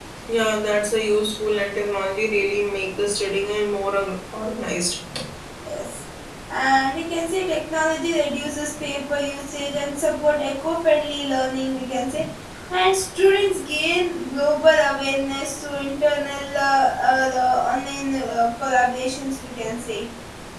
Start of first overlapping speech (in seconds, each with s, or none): none